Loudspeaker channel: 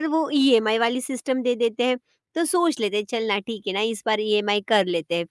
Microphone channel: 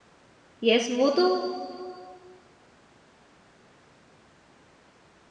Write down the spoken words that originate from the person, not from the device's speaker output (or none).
यस, वो तो